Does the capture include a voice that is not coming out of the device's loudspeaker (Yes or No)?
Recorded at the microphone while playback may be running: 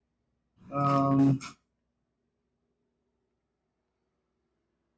Yes